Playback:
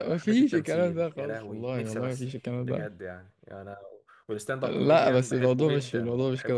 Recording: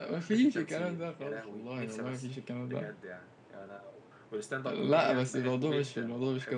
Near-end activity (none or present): none